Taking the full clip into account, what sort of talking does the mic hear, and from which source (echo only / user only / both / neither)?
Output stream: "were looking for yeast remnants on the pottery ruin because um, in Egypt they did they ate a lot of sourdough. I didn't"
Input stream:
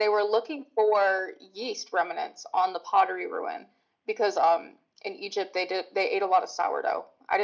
echo only